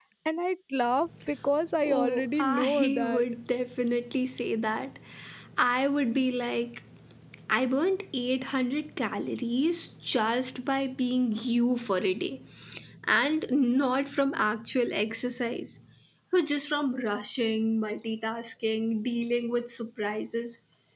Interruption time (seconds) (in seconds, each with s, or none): 1.8 s